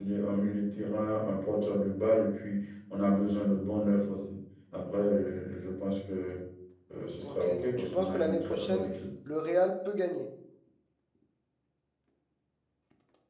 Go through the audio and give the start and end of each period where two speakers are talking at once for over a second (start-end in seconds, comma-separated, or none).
7.2-8.9